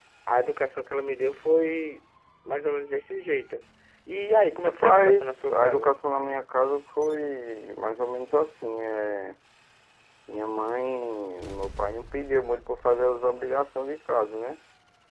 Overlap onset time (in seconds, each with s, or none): 4.7 s